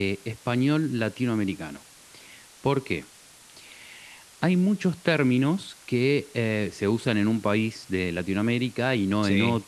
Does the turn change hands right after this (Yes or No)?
No